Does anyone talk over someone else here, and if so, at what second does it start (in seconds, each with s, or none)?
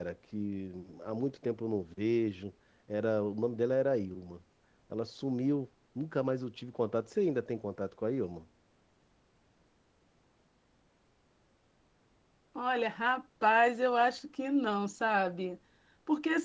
none